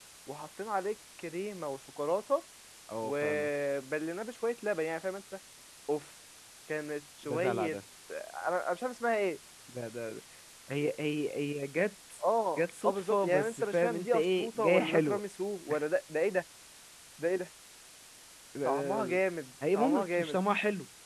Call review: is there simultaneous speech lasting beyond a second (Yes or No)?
Yes